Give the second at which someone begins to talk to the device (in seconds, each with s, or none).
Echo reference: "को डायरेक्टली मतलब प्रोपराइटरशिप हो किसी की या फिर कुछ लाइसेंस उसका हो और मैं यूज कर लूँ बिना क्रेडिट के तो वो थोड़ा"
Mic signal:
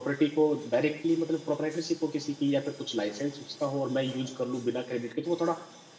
none